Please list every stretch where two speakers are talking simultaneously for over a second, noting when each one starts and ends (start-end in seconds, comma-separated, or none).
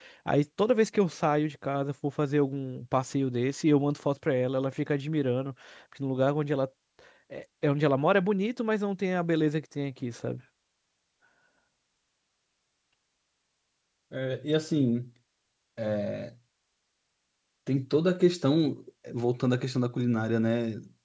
none